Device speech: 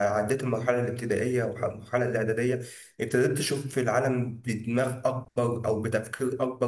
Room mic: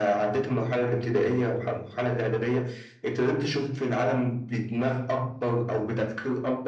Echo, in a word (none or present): present